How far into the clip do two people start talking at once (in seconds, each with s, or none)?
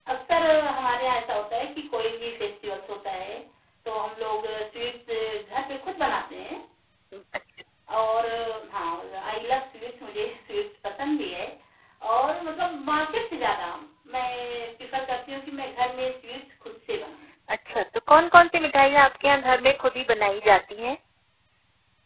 none